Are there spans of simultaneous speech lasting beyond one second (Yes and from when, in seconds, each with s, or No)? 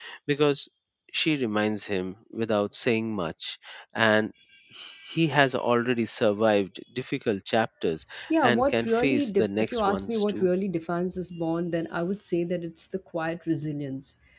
Yes, from 8.3 s